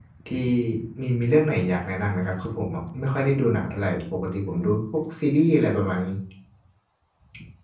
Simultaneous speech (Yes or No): No